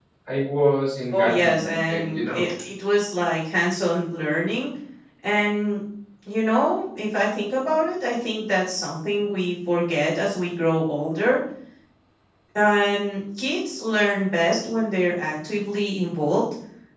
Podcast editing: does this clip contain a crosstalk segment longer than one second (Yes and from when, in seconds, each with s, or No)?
Yes, from 1.1 s